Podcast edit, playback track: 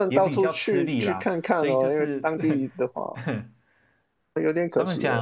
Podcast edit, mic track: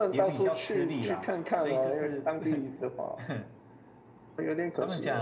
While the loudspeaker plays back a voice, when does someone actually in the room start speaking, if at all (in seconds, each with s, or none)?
none